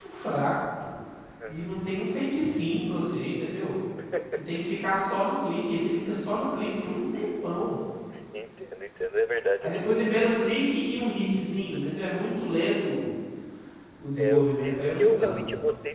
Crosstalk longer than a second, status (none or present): present